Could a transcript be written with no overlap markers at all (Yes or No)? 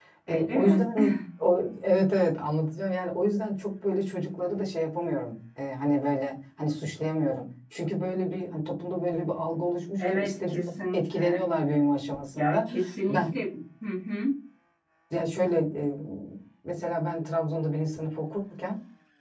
No